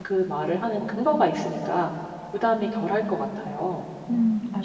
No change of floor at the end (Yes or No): No